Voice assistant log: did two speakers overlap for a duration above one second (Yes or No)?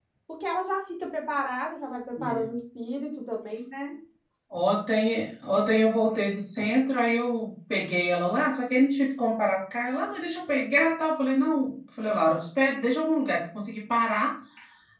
No